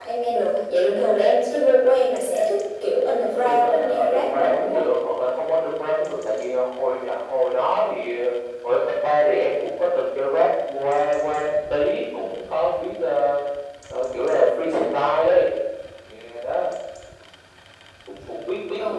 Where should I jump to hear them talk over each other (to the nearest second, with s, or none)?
3 s